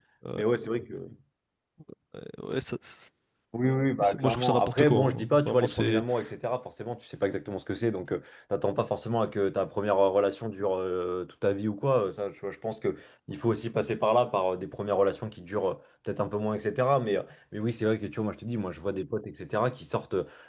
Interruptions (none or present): present